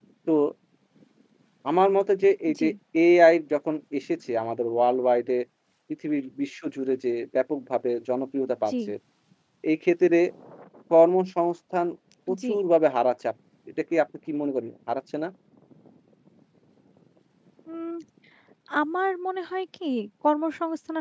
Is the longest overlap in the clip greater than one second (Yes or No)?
No